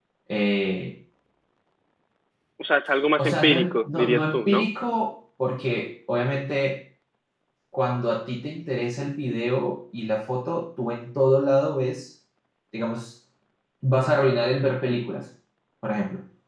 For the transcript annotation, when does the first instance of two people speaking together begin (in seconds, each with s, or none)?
3.2 s